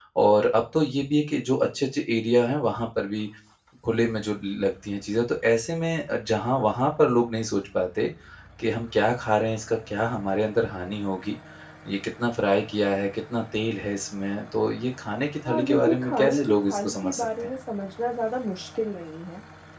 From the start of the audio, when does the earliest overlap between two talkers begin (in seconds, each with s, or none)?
15.4 s